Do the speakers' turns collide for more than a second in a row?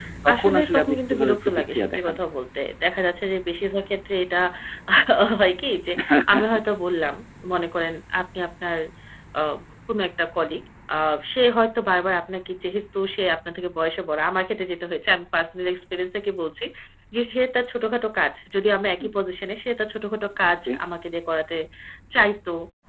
Yes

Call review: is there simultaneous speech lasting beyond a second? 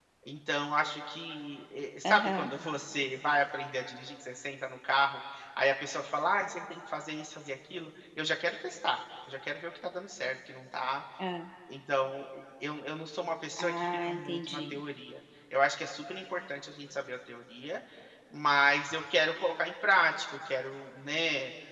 Yes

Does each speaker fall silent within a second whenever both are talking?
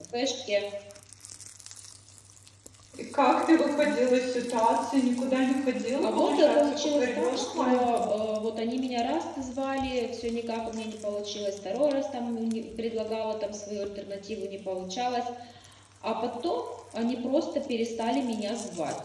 No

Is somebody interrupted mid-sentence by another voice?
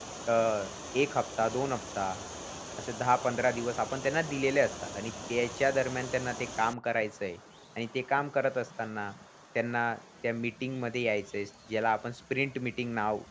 No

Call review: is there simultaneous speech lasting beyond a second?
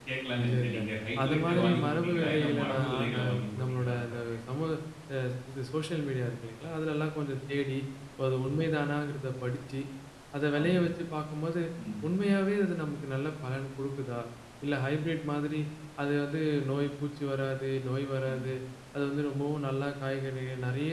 Yes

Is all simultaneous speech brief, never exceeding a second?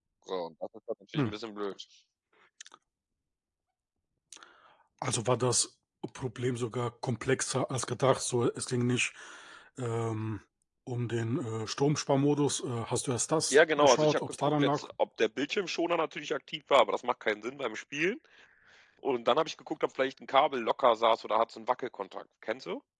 No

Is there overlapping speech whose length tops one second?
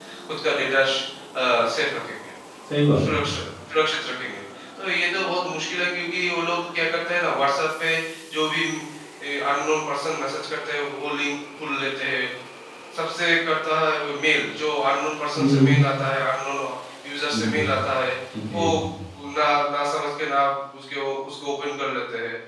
No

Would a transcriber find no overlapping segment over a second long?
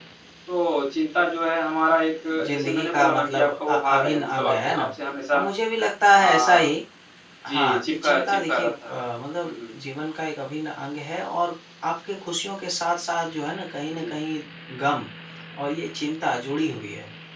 No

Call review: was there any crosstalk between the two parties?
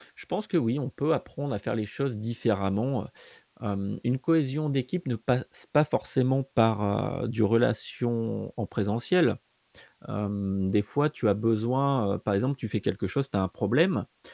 No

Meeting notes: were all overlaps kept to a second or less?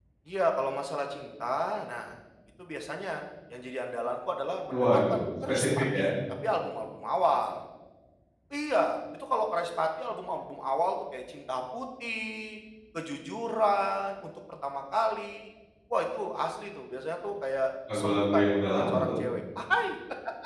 No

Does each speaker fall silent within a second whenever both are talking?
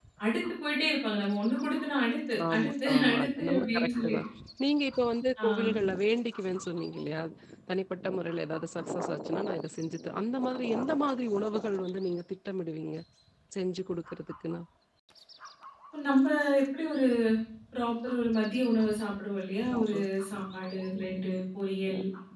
No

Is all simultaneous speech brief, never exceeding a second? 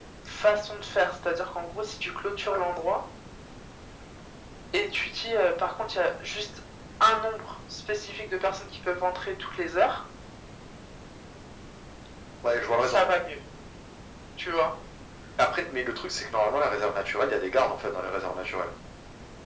Yes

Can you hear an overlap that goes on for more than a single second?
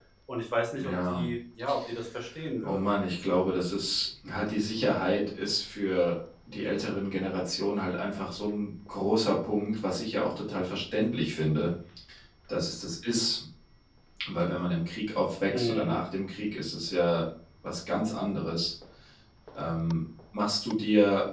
No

